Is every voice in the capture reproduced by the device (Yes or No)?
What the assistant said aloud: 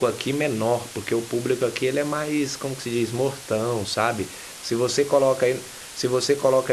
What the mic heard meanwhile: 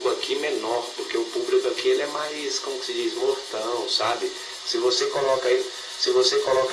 Yes